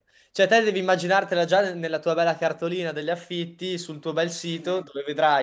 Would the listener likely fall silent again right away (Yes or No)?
Yes